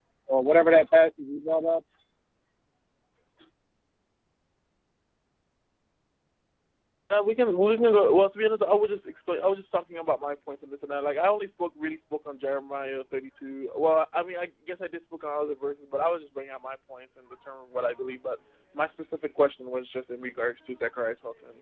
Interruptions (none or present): none